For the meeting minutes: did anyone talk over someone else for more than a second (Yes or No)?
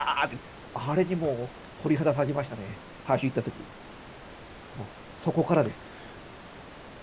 No